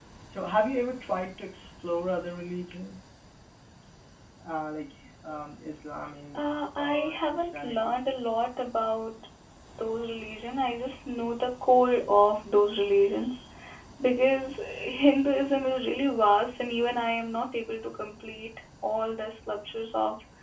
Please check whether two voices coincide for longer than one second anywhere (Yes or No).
Yes